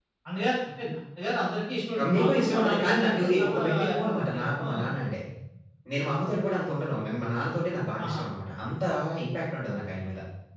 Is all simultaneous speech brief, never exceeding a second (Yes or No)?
No